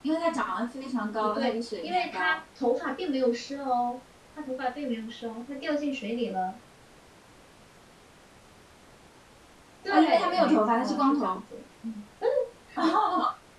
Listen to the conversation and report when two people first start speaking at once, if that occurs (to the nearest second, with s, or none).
1 s